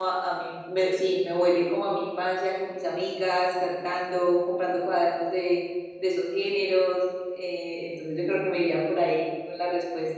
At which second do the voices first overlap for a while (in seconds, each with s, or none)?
none